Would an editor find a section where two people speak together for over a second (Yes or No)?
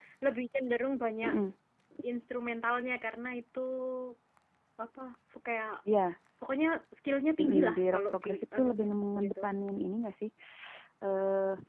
Yes